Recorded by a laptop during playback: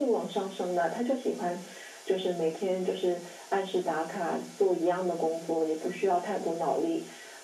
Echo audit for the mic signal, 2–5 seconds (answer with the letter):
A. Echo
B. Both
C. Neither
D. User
A